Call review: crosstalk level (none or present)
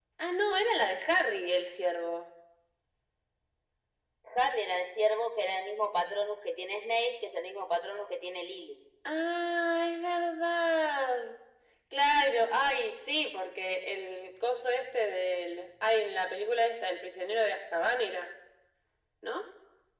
none